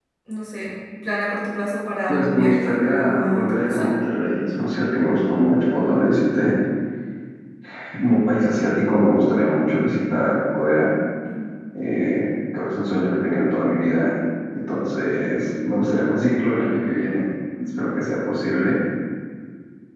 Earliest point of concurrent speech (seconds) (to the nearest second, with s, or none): 2 s